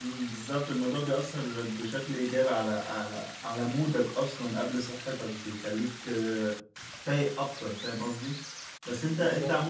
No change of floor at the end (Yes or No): Yes